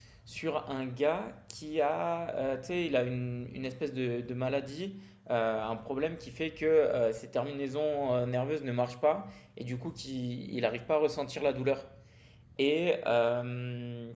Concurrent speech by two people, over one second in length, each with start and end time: none

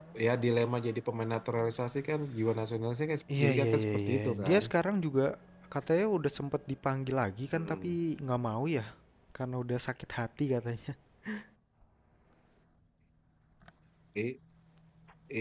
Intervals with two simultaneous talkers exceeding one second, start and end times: 3.4-4.6

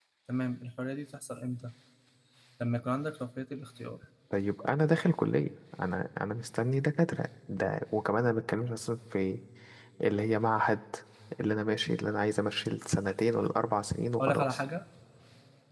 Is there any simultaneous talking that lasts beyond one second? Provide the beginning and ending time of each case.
none

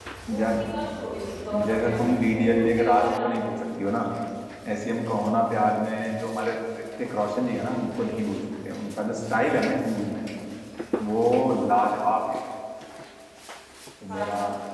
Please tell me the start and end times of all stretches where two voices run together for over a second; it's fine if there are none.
1.6-3.5

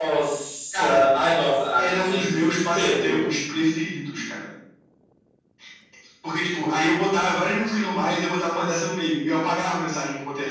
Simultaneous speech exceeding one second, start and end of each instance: 1.8-3.3

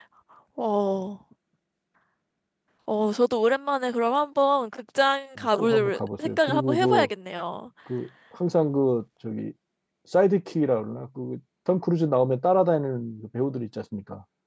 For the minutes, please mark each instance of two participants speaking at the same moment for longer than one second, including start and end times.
5.4-7.1

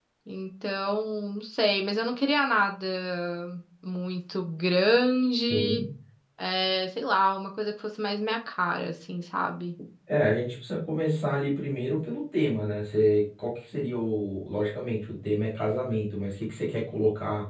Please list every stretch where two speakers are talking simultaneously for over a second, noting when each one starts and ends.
none

